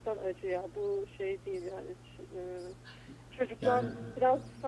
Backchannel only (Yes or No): Yes